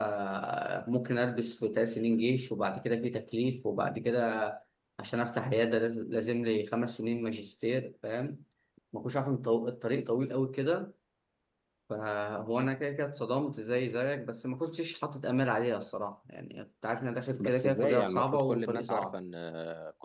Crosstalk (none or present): present